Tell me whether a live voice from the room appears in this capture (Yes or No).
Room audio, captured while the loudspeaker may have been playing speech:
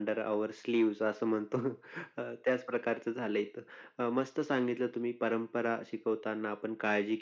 No